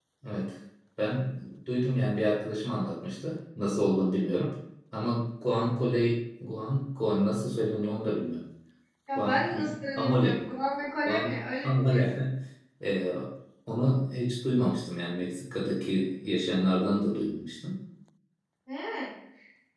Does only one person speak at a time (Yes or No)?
No